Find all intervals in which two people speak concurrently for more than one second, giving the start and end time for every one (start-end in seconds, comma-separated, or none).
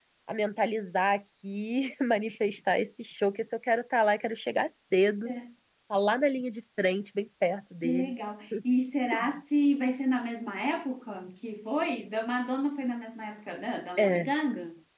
none